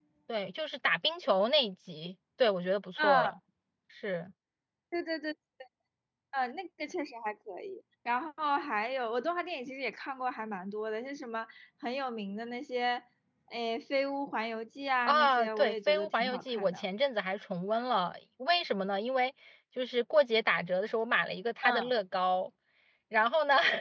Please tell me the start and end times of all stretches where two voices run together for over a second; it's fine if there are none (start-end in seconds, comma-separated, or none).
15.1-16.8